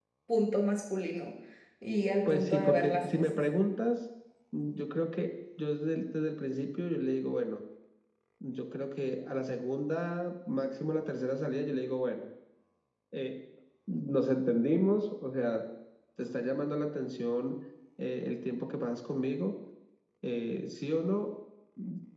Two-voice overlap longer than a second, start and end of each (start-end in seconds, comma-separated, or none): 2.2-3.5